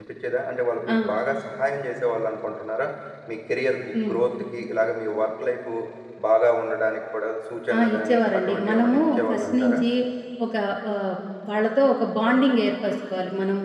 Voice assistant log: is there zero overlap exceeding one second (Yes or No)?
No